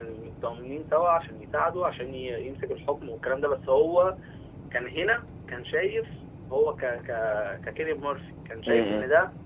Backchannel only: Yes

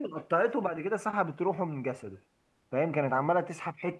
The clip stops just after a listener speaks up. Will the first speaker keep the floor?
Yes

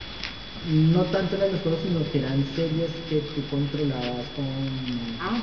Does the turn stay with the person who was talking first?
No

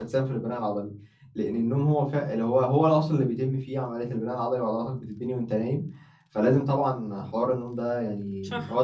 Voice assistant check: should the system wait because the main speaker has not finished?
Yes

